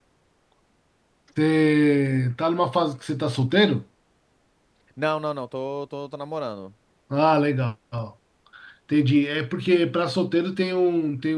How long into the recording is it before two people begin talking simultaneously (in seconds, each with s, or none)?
none